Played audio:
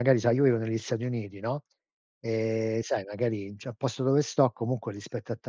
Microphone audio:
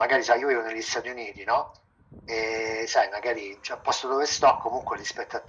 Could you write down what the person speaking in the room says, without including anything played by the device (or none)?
none